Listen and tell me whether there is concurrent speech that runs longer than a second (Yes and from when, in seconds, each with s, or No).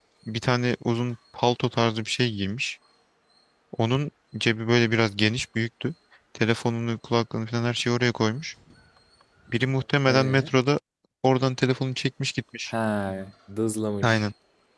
No